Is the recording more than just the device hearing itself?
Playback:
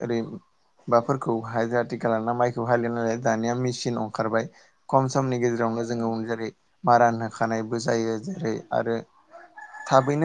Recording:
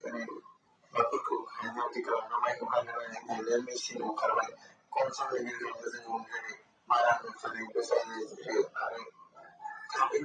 No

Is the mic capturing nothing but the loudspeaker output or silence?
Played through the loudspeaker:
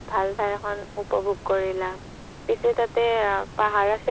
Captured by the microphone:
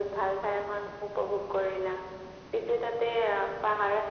Yes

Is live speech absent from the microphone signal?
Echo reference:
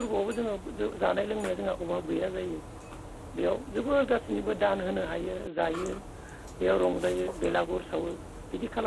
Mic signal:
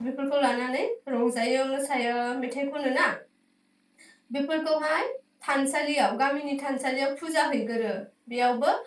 No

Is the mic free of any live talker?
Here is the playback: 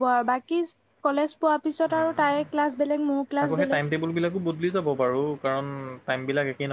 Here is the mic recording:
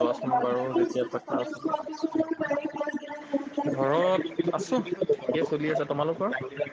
No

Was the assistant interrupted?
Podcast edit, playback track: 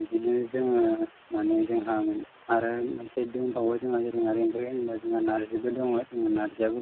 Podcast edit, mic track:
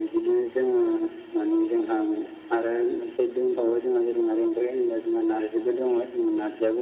No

